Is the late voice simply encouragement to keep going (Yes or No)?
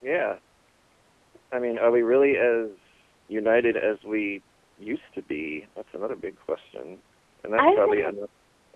Yes